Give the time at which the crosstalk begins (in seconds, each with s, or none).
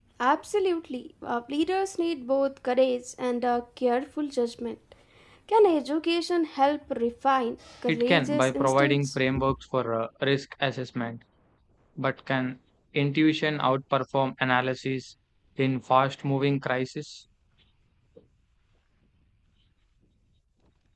7.9 s